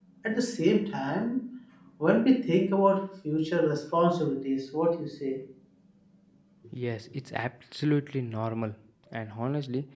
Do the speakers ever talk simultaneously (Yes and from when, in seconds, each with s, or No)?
No